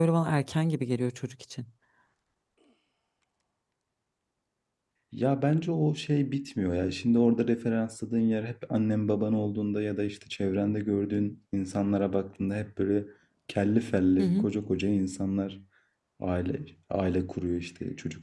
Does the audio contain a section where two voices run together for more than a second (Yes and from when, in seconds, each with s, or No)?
No